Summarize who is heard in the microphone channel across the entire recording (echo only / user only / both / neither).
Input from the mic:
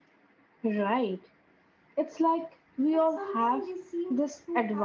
both